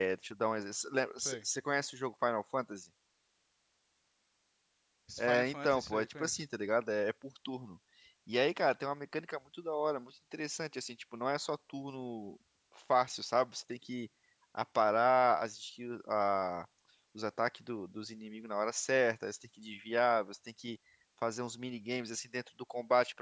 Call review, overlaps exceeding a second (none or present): present